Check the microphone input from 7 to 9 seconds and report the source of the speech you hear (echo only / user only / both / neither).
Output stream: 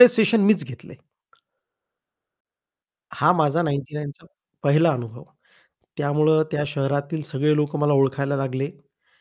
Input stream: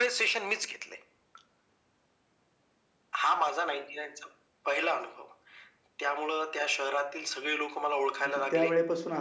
both